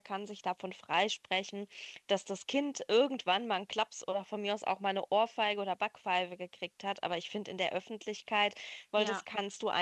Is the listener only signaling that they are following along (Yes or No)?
Yes